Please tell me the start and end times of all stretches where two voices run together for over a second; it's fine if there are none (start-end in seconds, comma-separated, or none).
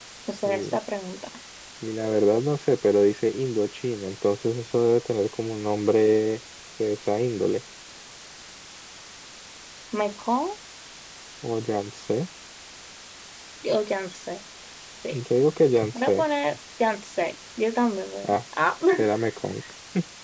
none